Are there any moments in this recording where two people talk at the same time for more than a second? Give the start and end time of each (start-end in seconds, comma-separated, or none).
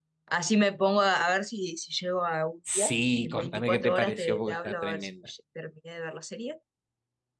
2.8-5.1